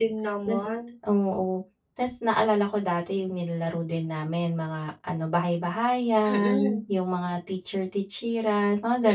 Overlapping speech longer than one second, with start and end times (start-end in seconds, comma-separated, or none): none